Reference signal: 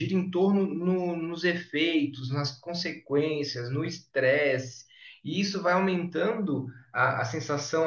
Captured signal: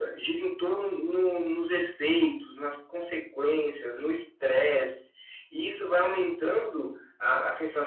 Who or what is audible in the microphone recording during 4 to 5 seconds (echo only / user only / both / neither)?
echo only